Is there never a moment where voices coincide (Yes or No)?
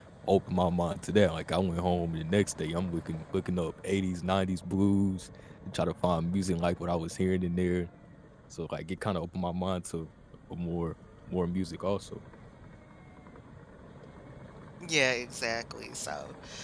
Yes